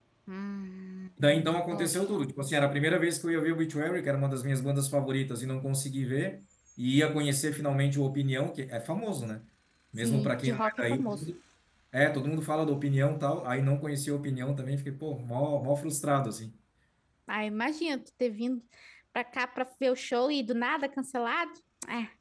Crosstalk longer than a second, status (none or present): present